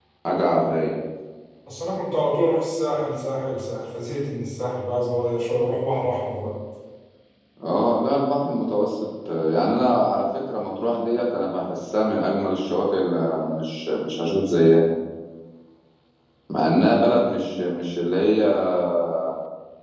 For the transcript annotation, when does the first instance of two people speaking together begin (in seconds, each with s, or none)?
none